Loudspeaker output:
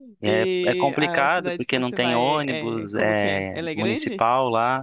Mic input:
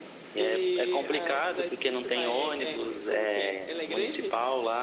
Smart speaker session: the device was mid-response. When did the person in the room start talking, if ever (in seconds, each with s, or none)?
none